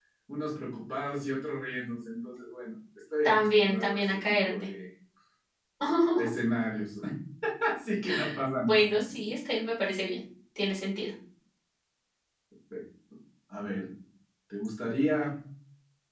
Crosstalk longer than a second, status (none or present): present